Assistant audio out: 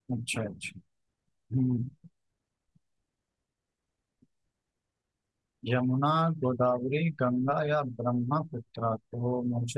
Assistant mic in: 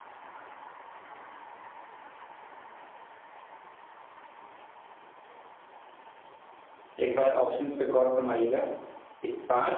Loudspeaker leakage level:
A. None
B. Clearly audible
A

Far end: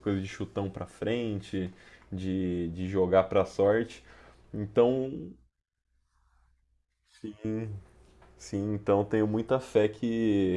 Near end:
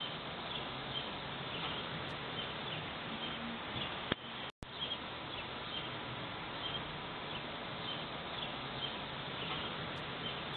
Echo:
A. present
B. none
B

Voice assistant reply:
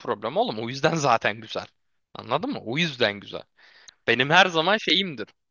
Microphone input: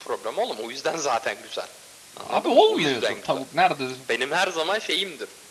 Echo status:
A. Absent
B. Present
B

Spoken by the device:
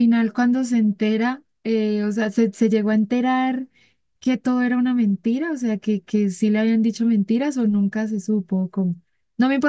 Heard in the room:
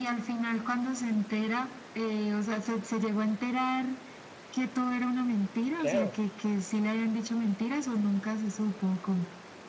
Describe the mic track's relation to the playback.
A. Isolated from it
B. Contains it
B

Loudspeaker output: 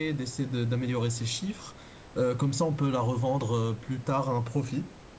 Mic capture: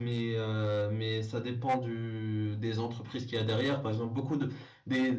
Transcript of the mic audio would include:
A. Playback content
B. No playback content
B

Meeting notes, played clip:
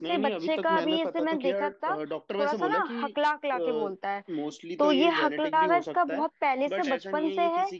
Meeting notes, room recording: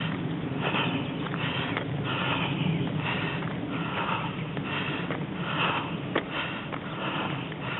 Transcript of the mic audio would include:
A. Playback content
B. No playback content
B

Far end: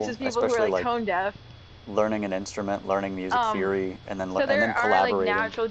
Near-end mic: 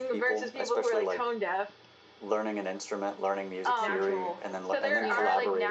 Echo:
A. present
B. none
A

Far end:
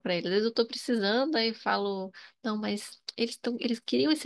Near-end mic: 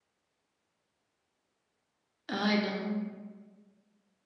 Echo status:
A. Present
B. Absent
B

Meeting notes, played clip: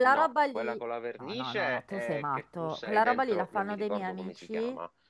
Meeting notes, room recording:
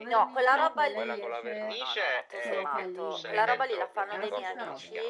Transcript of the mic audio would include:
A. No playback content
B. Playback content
B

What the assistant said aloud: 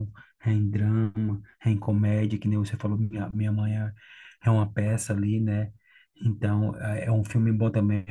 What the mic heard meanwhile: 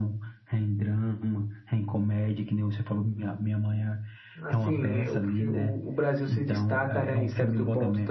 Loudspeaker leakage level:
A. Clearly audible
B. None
A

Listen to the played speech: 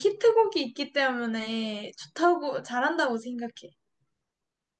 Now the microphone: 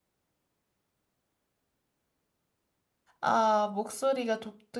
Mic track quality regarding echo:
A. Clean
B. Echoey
A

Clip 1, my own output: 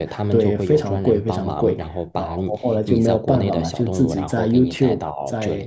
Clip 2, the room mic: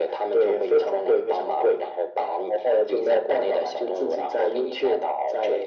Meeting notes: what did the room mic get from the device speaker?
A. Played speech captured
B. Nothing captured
A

